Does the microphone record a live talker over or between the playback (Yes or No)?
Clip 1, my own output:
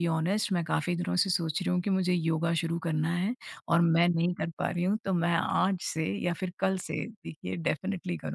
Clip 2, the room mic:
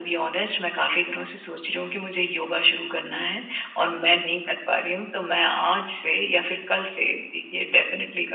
No